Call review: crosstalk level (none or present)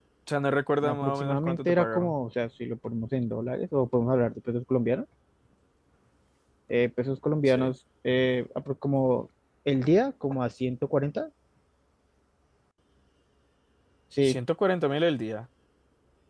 present